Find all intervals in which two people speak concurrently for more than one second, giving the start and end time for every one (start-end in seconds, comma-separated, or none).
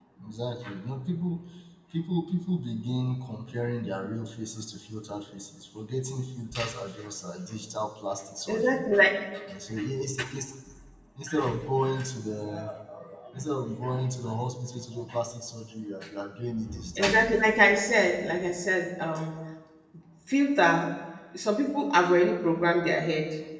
none